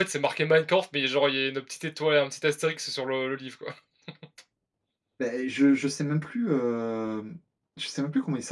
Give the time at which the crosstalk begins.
none

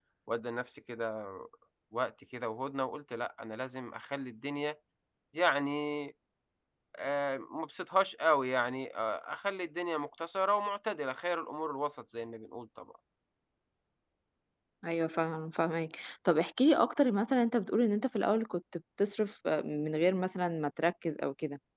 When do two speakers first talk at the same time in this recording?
none

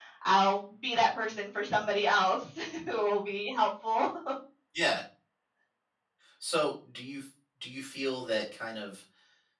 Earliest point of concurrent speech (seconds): none

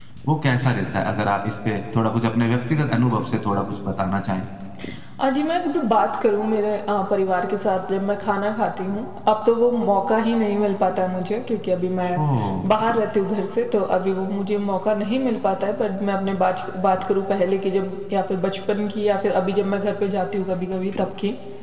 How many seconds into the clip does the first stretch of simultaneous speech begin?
none

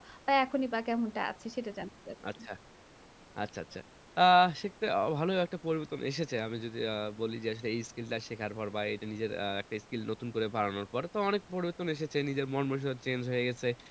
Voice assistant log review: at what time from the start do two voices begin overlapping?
none

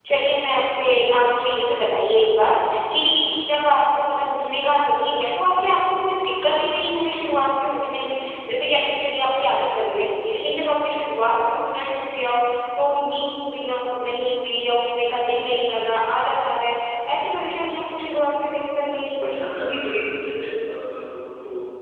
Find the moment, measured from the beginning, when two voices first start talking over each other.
none

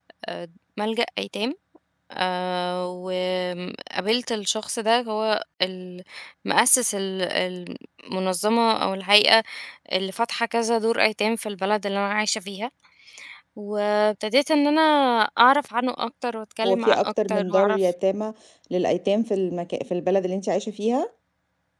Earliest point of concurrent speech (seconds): 16.6 s

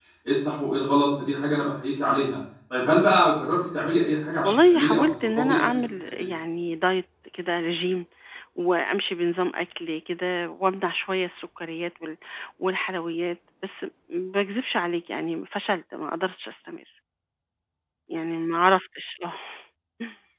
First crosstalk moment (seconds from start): 4.4 s

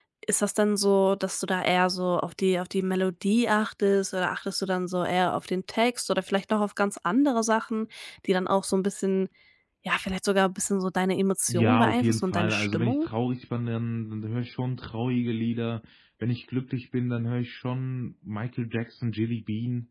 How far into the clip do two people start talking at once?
11.5 s

